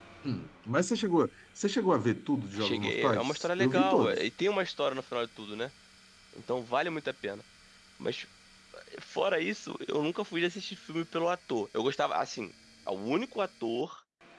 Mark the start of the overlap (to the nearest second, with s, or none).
3 s